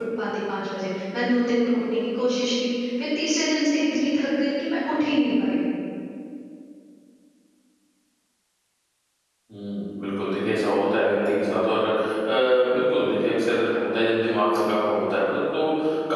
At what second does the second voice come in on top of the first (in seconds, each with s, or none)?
none